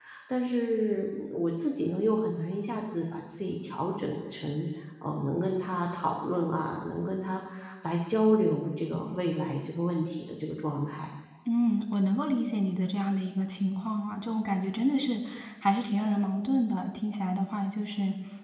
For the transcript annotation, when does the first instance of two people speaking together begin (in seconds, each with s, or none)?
none